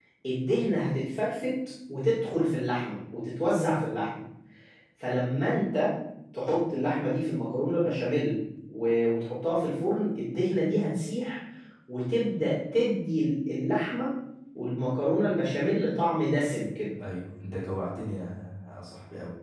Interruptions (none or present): none